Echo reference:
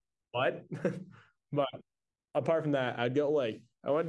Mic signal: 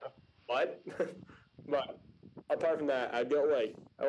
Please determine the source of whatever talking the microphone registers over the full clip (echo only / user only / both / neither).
echo only